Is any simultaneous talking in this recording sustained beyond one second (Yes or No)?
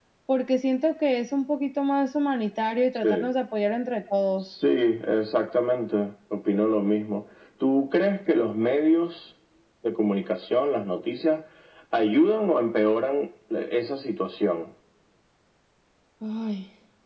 No